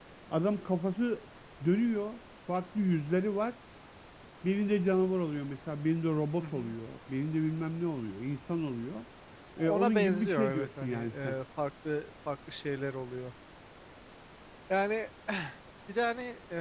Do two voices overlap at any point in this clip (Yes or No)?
Yes